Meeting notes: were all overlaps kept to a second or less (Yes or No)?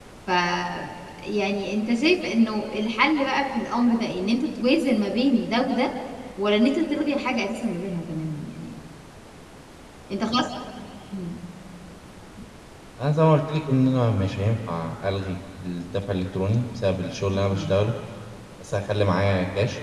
Yes